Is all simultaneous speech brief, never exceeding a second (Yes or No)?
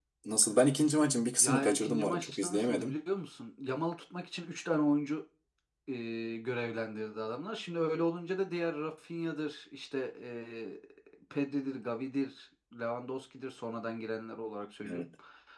No